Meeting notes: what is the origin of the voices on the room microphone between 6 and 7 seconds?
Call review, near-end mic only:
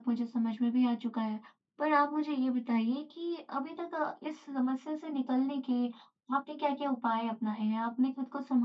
echo only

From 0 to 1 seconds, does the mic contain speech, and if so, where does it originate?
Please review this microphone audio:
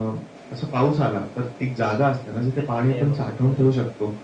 echo only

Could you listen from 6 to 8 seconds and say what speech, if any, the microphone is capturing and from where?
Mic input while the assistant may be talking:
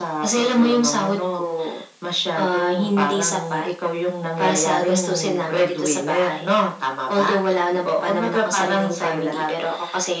echo only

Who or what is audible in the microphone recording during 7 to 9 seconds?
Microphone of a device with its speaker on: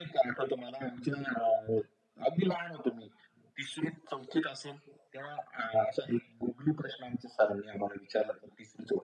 echo only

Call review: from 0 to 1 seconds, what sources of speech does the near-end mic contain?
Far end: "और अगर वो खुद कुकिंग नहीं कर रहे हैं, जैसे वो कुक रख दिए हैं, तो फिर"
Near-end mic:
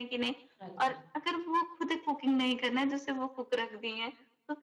both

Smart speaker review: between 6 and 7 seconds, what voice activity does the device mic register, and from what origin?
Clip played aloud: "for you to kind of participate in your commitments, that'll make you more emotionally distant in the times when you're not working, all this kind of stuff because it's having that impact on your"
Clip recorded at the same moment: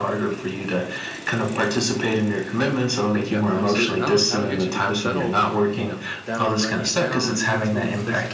both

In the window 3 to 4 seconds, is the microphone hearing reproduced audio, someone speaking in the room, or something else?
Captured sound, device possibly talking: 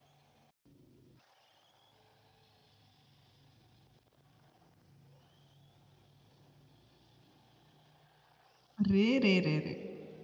neither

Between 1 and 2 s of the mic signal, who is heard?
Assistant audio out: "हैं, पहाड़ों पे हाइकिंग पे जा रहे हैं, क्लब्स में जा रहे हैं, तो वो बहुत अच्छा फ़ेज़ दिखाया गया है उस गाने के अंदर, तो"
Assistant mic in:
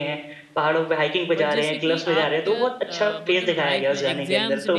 both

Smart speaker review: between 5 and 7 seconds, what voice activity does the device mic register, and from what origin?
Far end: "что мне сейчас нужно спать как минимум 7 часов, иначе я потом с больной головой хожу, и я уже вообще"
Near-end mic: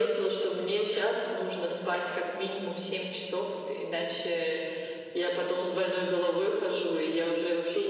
echo only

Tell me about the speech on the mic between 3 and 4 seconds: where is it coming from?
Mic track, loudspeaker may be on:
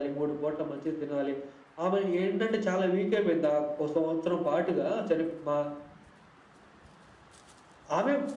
echo only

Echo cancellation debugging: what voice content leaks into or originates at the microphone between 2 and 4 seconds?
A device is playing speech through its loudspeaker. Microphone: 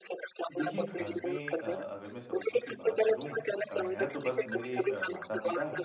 both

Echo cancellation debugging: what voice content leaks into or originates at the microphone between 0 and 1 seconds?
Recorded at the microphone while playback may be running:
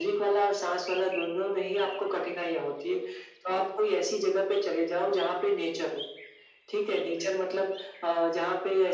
echo only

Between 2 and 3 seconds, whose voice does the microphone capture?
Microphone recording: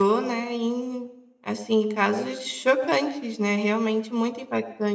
user only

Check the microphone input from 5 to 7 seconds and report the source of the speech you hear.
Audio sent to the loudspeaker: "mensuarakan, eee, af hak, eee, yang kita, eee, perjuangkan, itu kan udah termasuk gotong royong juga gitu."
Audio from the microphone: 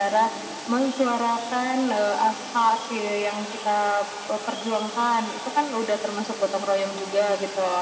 echo only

